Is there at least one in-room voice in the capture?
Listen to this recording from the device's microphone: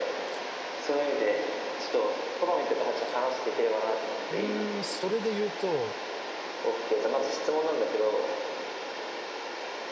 Yes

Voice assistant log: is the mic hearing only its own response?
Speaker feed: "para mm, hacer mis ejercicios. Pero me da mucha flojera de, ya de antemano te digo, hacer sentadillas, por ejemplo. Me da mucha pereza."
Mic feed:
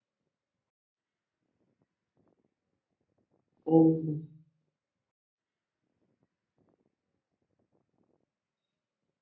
No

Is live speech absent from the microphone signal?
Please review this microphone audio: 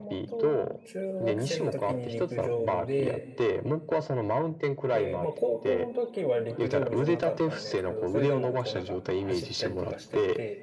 No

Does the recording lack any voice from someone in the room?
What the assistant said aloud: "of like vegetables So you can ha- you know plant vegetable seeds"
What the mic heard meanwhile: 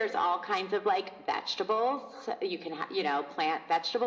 Yes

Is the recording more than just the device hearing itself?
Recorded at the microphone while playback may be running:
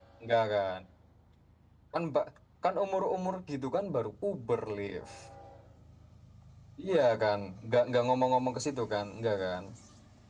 No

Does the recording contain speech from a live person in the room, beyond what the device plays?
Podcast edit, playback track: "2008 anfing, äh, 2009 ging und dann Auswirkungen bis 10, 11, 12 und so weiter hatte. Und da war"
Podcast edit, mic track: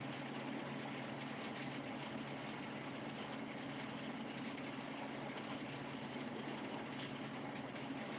No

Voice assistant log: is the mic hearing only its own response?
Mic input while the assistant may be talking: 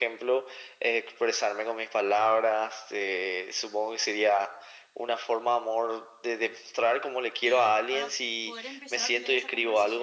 No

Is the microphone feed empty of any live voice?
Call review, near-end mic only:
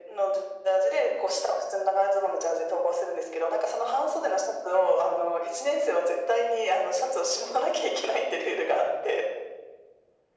Yes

